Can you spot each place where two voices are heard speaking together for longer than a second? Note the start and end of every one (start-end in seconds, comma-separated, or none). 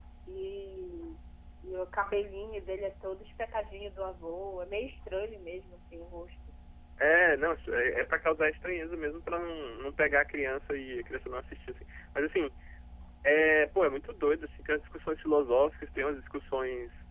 none